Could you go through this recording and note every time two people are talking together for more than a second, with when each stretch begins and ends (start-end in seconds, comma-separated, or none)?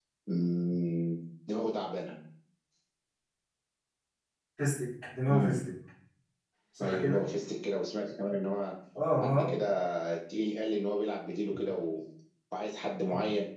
none